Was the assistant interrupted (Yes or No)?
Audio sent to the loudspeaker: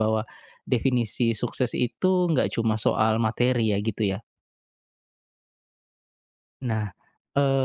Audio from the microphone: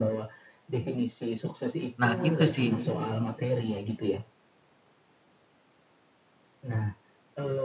Yes